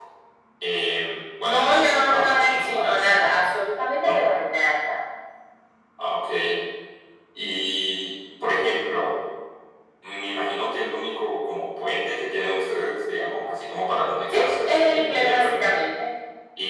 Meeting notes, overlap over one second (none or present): present